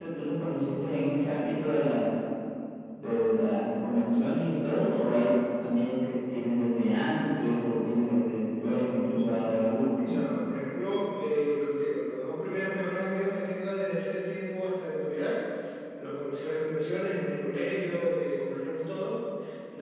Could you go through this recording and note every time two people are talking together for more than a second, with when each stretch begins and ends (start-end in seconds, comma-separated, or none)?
none